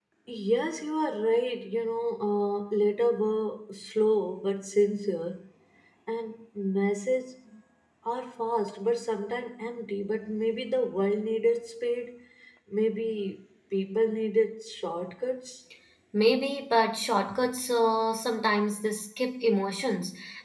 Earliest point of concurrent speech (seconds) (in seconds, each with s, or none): none